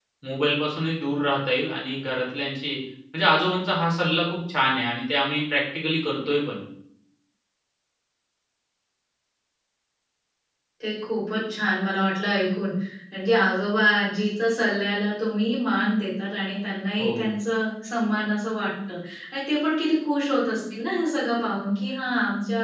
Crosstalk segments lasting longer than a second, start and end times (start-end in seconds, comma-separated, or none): none